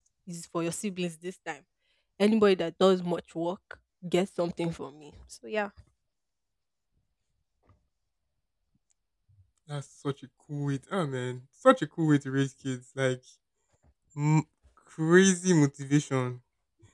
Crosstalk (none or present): none